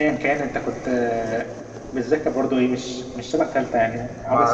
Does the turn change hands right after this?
Yes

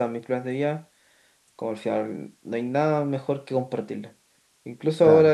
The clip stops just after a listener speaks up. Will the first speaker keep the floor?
Yes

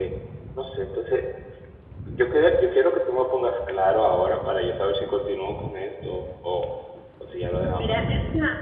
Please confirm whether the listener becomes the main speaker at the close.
Yes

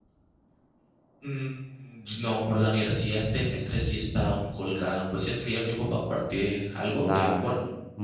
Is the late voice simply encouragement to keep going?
No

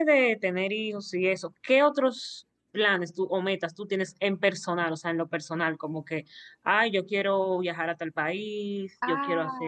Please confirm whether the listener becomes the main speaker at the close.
Yes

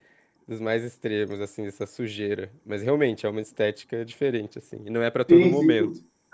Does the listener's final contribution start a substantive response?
Yes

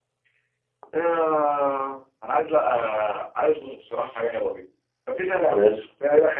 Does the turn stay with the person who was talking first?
Yes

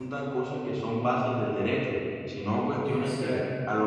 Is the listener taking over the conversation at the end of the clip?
No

